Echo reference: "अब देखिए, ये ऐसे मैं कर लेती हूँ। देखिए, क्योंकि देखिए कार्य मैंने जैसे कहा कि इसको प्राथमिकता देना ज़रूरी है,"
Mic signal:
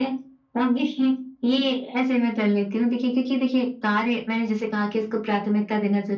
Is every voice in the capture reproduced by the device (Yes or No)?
Yes